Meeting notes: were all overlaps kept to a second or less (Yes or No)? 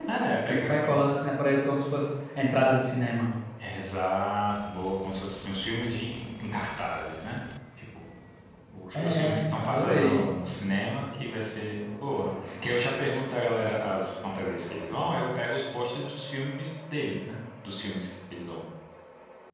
No